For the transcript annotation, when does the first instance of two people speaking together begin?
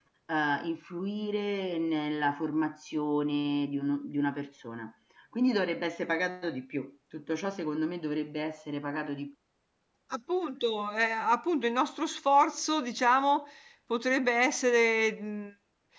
none

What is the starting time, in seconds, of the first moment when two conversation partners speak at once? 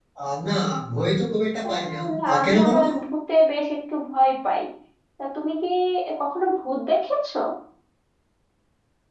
1.7 s

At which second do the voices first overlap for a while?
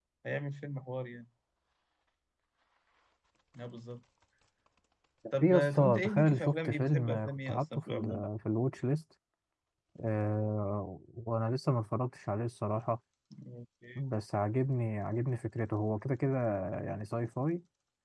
5.4 s

